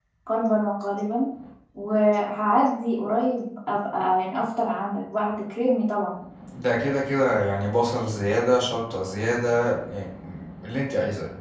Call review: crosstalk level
none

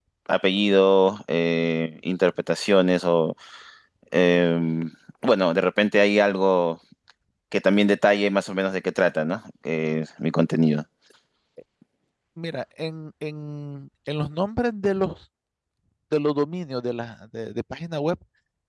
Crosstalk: none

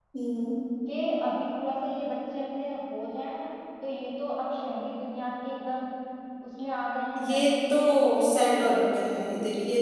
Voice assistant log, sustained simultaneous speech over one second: present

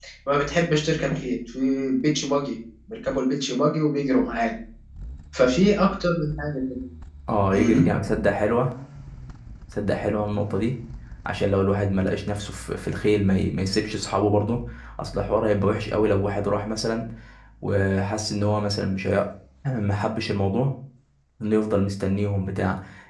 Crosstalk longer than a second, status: none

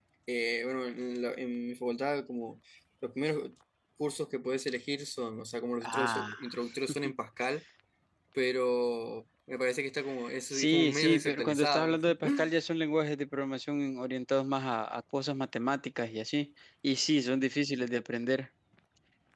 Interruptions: present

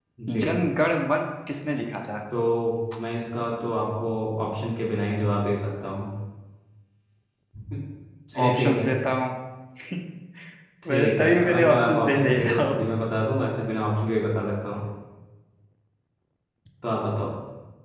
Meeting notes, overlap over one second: present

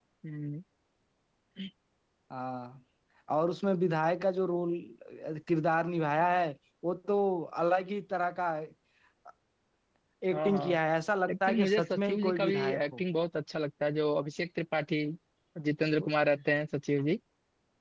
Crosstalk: present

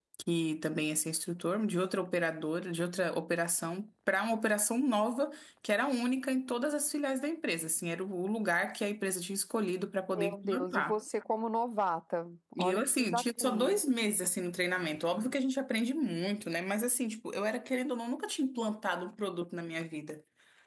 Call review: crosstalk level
present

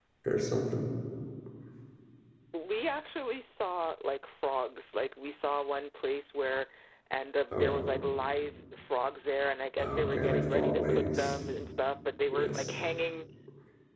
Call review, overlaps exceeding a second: present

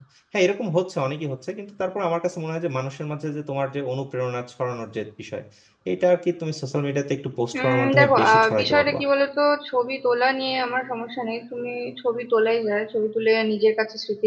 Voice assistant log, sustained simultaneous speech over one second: present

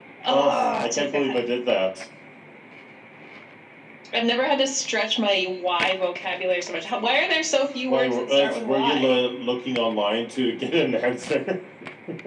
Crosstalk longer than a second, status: present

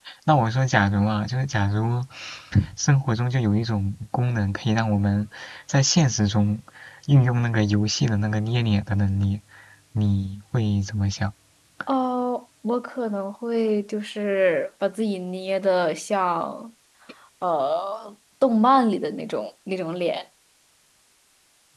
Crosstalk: none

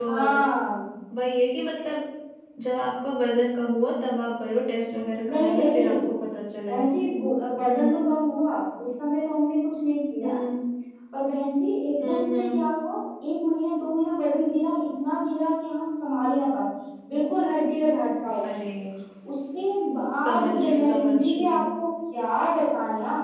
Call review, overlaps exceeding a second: present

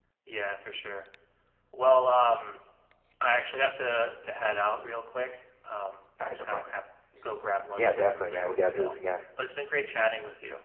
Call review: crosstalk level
present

